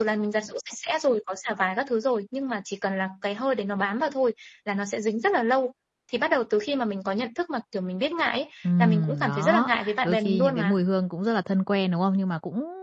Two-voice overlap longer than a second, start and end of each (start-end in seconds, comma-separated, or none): 8.6-10.7